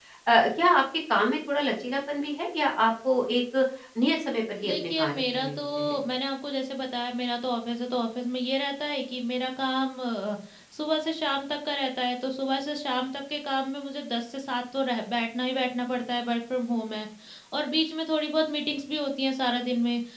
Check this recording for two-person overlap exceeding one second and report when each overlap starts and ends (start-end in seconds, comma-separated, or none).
4.6-5.9